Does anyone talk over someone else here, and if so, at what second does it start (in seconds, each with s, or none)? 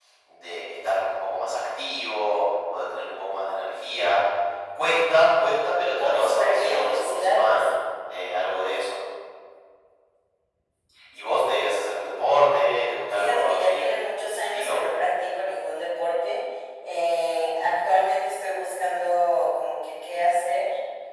5.9 s